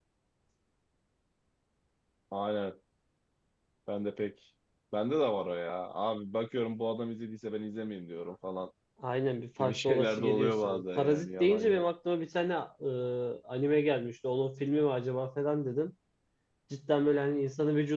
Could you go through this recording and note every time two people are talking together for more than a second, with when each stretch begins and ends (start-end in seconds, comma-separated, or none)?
9.6-11.8